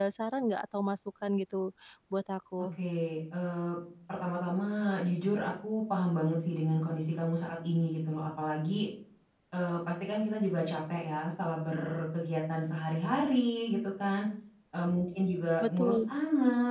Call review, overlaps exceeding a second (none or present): none